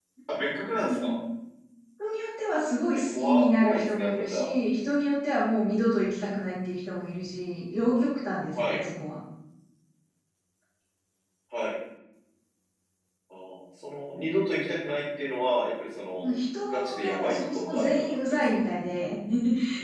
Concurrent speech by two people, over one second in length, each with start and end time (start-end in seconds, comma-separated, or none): 2.9-4.5, 16.7-18.6